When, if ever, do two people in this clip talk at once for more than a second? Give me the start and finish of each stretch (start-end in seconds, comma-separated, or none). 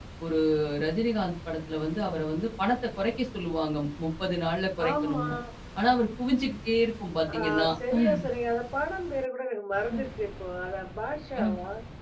none